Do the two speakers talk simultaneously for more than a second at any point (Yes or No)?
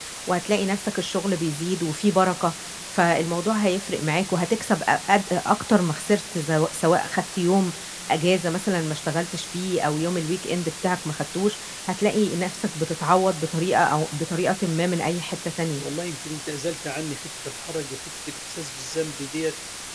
No